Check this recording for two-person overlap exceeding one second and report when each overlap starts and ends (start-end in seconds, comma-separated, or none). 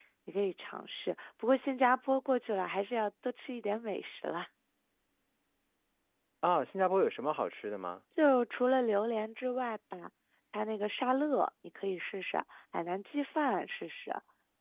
none